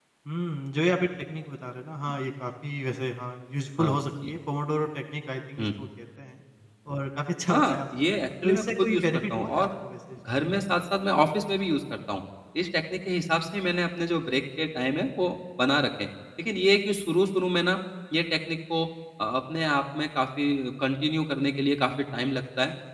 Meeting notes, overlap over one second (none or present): present